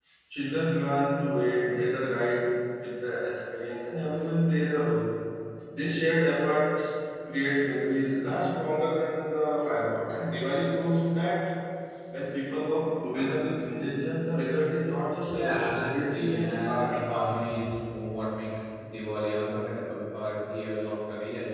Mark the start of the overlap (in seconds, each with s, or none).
15.3 s